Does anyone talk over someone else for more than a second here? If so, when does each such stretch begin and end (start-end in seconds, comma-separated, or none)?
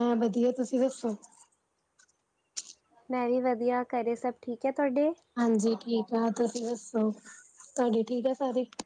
none